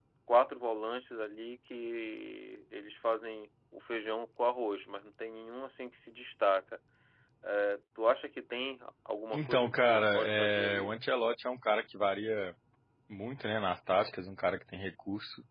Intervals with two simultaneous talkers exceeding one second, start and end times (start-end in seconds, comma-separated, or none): 9.3-10.9